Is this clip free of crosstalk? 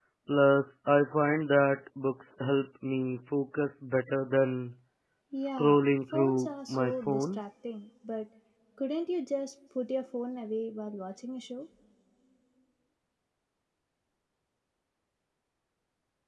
No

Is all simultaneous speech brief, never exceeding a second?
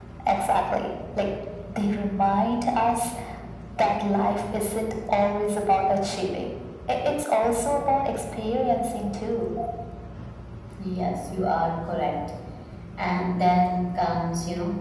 Yes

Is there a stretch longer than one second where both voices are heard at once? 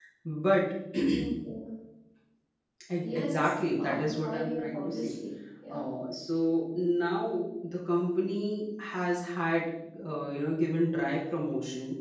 Yes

